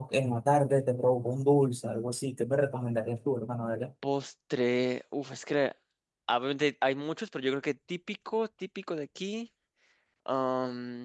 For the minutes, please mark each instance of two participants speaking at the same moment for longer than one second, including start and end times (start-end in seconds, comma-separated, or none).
none